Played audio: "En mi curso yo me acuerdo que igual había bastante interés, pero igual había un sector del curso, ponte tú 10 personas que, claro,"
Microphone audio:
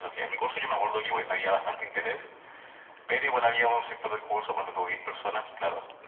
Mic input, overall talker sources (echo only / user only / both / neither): echo only